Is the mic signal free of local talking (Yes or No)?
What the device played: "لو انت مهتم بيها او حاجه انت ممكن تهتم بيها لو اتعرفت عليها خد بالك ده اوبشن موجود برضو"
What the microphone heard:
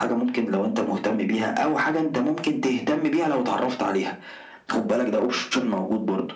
Yes